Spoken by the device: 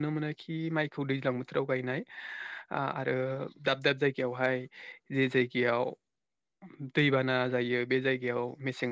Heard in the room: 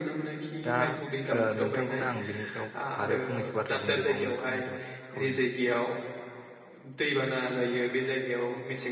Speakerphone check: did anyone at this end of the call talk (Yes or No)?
Yes